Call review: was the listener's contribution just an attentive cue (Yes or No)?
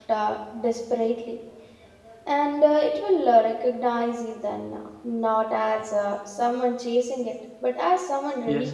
No